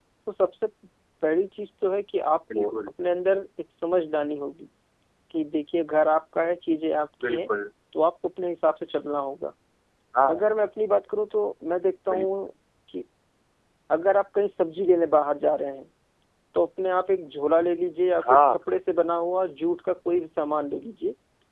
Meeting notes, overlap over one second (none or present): none